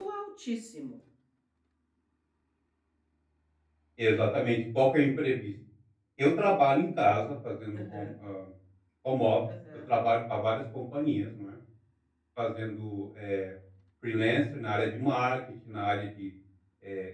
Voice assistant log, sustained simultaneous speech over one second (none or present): none